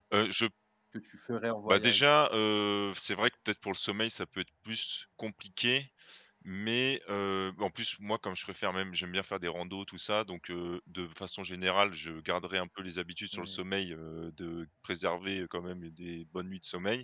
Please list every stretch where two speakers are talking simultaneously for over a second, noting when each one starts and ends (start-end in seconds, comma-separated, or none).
none